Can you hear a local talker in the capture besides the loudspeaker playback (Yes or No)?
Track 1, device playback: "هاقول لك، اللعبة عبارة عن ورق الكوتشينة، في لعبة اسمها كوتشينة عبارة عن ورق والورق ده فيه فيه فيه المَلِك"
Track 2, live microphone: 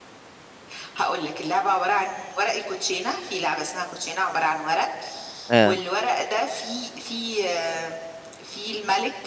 Yes